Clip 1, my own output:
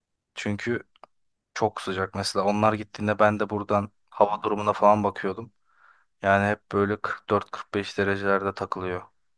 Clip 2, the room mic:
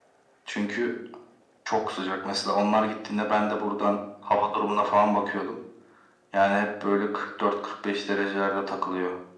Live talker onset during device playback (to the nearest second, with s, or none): none